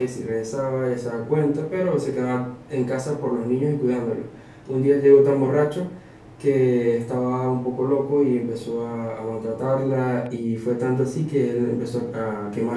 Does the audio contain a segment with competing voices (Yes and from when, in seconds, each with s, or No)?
No